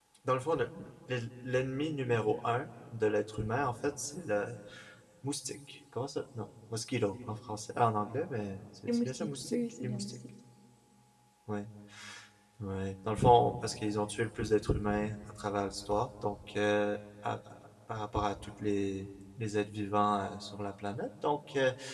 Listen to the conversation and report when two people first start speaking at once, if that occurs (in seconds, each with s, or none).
8.9 s